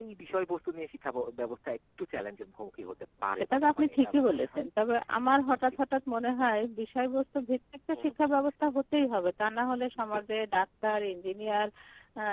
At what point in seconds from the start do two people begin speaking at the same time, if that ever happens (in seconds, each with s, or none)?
3.3 s